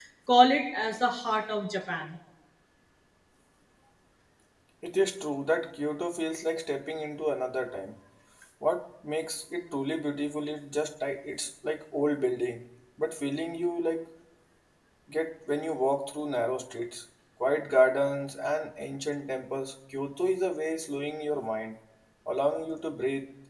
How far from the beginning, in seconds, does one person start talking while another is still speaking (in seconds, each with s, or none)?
none